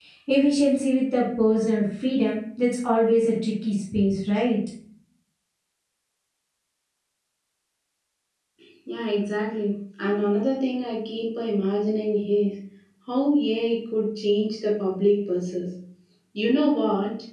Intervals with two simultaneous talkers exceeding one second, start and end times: none

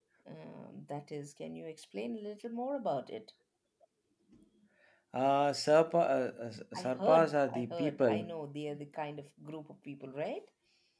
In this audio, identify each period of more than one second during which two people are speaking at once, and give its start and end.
6.8-8.3

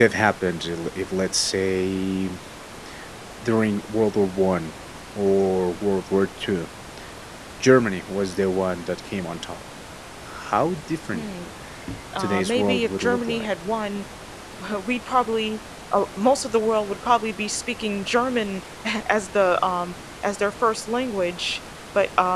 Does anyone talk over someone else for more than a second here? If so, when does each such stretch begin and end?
12.2-13.5

